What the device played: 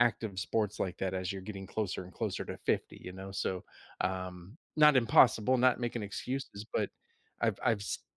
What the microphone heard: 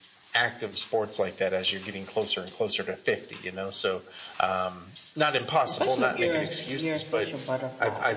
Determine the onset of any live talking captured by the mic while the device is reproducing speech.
5.7 s

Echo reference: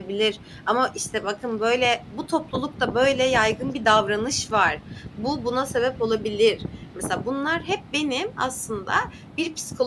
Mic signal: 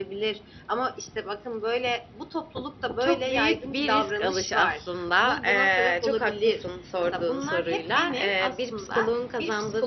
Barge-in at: 3.0 s

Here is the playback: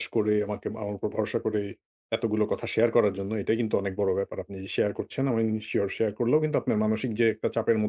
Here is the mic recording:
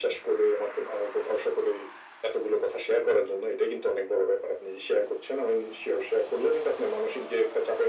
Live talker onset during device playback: none

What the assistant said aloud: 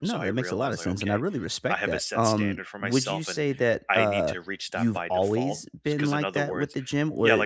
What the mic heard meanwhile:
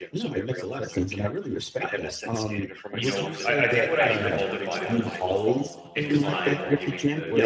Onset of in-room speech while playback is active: 2.9 s

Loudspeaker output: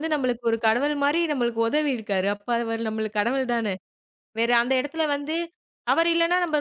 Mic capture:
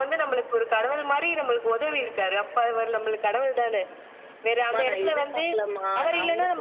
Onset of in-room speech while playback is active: 4.7 s

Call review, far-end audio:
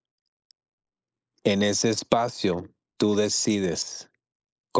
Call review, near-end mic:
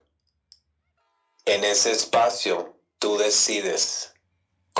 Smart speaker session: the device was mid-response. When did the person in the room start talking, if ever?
none

